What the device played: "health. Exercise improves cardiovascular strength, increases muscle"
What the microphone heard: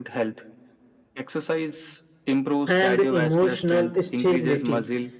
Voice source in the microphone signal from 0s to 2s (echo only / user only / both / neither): echo only